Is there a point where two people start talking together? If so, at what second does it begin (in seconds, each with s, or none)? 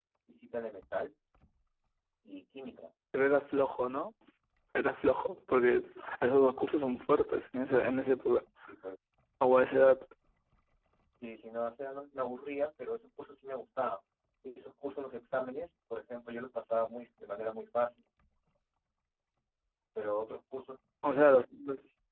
none